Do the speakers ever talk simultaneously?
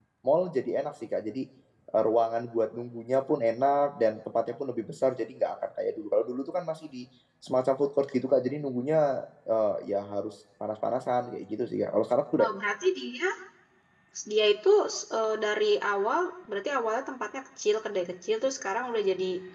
No

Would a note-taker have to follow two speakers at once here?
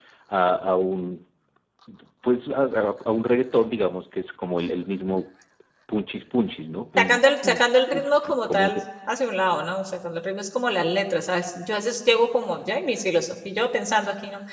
Yes, from 7.0 s

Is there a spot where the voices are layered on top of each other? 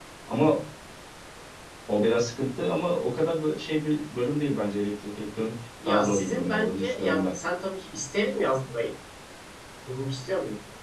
Yes, from 5.8 s

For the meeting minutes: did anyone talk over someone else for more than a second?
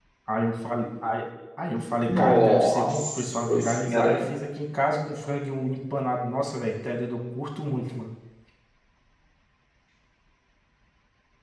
Yes, from 2.1 s

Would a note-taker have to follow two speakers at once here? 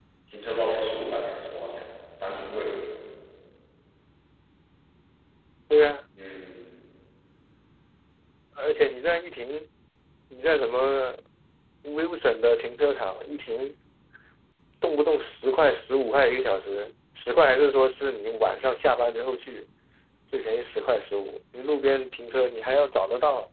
No

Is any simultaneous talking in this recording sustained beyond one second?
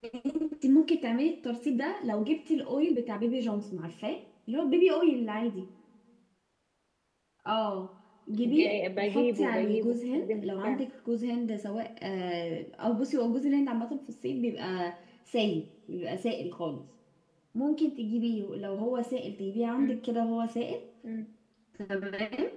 Yes, from 8.4 s

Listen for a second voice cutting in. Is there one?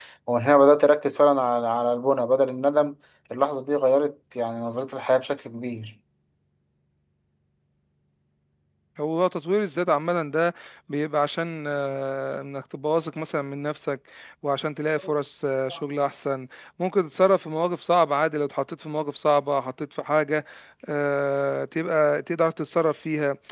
No

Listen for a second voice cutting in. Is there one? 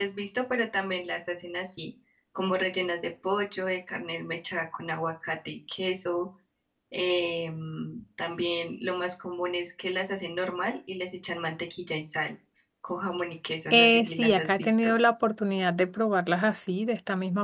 Yes, from 13.7 s

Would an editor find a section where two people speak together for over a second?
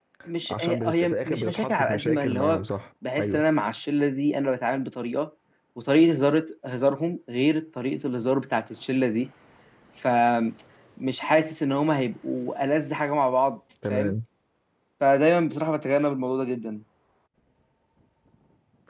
Yes, from 0.5 s

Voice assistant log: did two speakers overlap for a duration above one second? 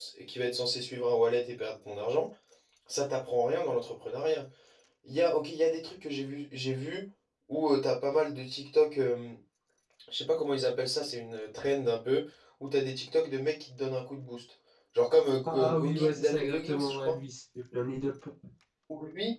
Yes, from 15.4 s

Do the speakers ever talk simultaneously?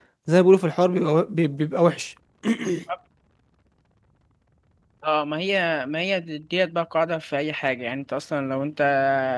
No

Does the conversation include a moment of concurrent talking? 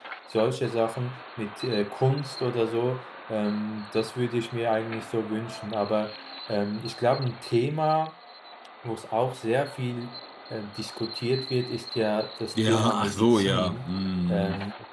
Yes, from 12.6 s

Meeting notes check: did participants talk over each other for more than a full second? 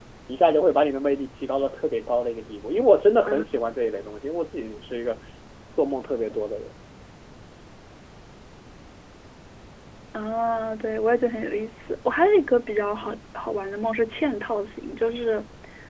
No

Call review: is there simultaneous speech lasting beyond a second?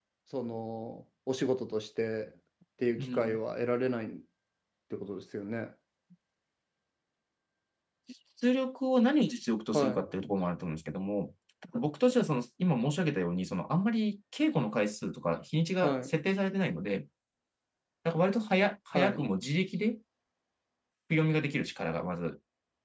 No

